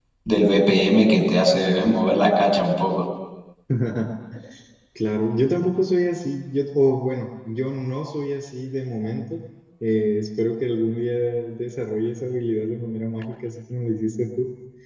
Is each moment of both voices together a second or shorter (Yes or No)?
Yes